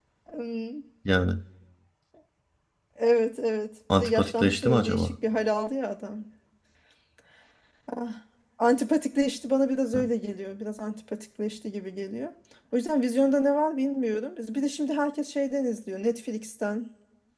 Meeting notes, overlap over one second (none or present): present